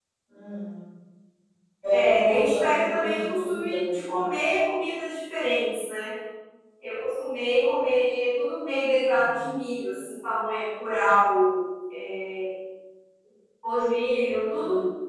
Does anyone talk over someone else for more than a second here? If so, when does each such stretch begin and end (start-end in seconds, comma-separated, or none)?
1.9-4.2